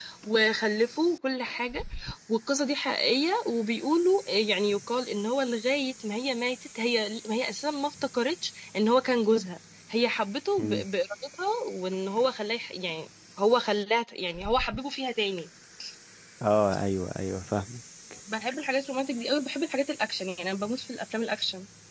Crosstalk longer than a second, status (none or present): none